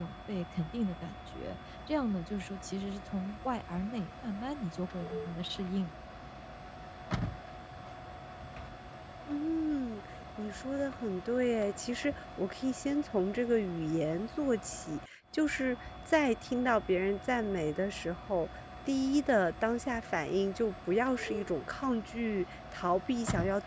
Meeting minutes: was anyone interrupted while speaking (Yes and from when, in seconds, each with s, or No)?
No